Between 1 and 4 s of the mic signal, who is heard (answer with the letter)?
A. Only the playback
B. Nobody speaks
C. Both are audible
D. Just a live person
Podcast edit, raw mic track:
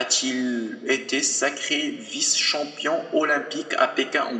A